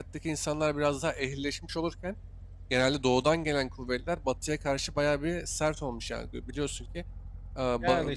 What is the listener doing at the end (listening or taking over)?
taking over